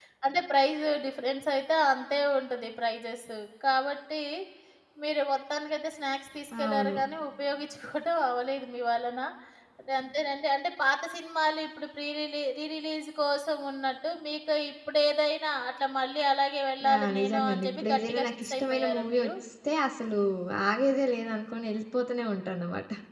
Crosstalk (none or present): present